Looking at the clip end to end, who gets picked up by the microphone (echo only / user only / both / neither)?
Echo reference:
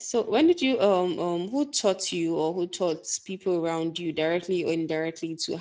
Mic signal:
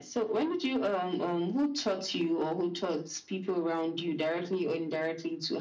echo only